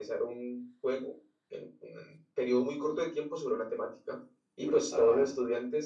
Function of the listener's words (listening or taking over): listening